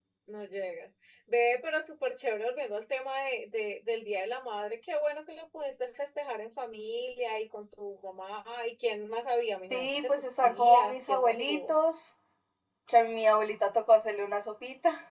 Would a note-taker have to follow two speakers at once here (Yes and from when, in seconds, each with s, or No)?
Yes, from 9.7 s